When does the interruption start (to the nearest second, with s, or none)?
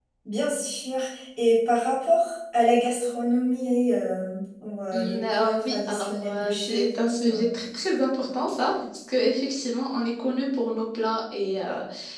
5 s